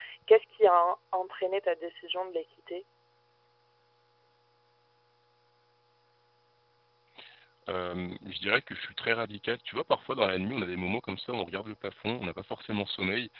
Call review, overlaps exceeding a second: none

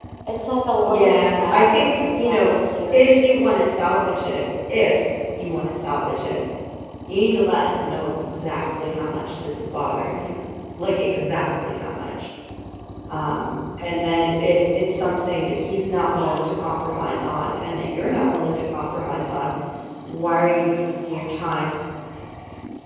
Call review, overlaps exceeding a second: present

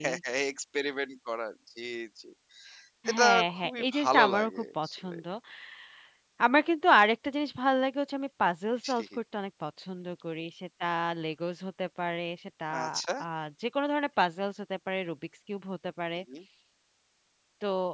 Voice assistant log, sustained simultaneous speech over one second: present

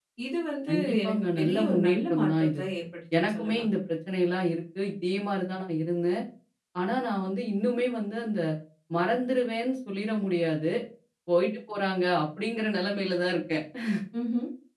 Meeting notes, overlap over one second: present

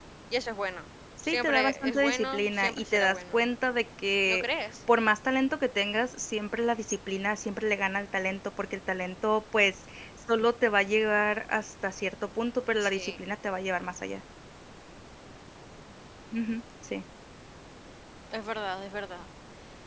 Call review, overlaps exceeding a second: present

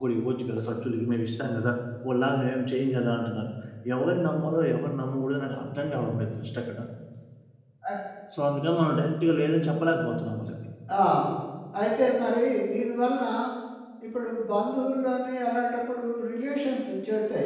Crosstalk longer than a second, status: none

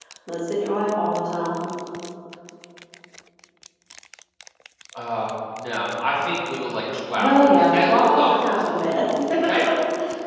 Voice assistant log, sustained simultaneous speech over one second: present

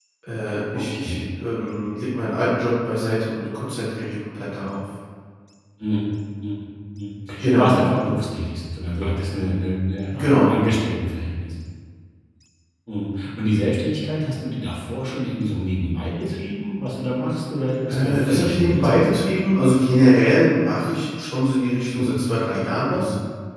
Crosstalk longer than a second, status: present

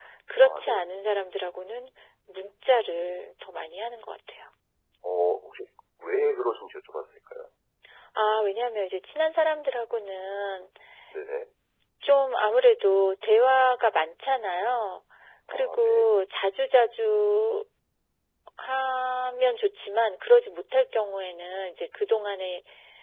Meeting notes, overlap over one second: none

